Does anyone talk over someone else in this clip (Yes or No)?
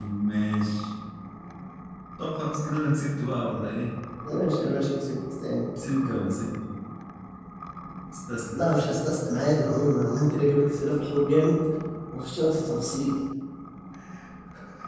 No